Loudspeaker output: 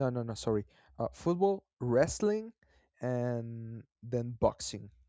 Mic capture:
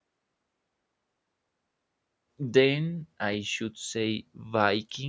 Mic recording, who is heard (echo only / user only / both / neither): user only